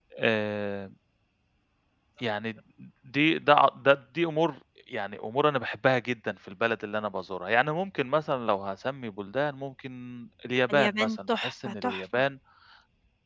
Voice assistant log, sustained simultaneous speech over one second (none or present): present